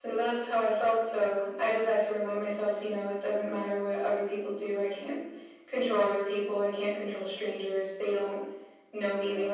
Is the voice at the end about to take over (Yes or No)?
No